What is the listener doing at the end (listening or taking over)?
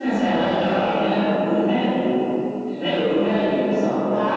taking over